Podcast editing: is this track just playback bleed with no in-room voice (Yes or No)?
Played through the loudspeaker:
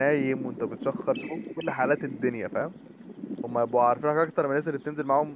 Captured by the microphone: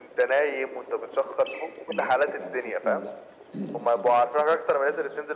No